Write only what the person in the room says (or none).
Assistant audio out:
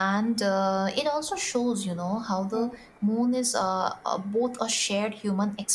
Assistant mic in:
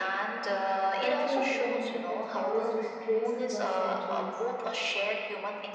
cultural phenomenon that scholars just trace across centuries.